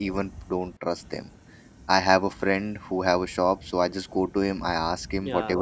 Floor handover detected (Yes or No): No